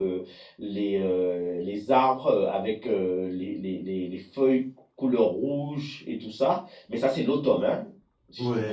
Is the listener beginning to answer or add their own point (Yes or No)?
Yes